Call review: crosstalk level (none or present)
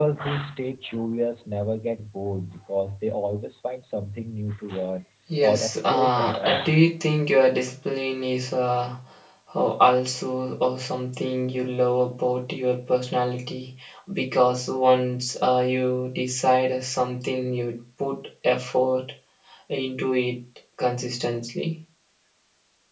present